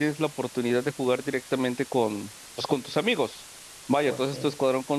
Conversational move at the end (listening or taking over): listening